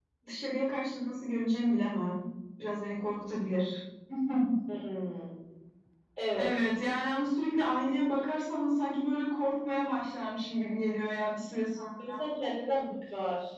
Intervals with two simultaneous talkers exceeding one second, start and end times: none

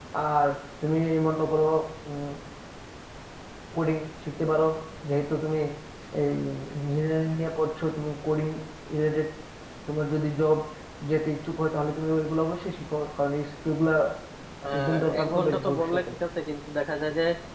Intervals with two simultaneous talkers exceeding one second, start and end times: 14.8-16.0

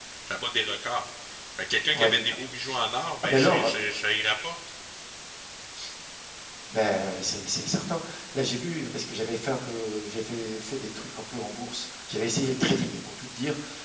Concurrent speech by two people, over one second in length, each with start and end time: none

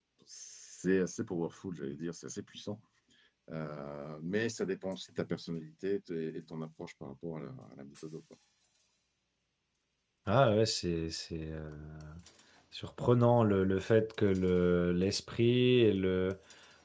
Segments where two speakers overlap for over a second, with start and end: none

